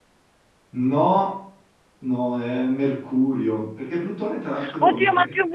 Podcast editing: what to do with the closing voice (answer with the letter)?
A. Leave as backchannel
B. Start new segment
B